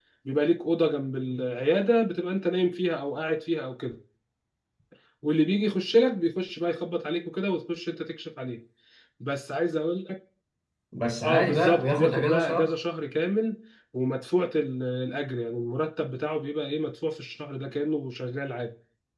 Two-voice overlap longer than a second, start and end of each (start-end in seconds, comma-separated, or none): 11.2-12.7